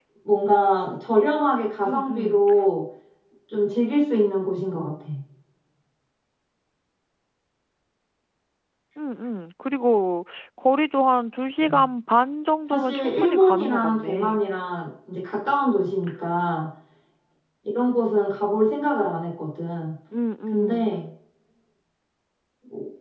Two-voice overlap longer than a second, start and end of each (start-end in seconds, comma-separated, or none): 12.7-14.4